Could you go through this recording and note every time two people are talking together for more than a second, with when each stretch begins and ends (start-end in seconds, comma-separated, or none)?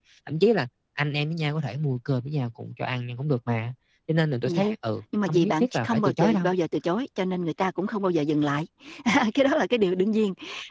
5.3-6.5